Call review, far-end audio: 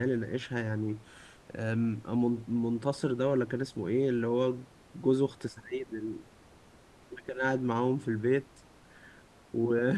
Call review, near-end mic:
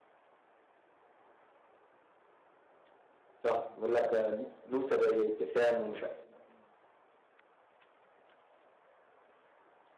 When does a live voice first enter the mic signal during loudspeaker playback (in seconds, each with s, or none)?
3.4 s